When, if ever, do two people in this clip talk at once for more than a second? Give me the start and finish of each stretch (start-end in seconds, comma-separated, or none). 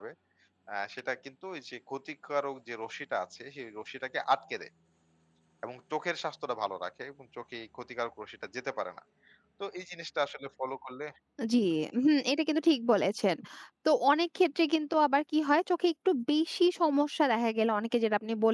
none